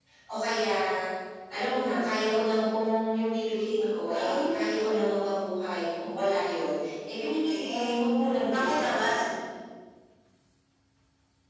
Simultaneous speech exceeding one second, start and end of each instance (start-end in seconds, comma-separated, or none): 7.3-9.1